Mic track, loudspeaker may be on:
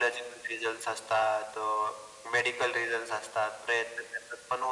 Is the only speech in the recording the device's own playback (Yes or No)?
Yes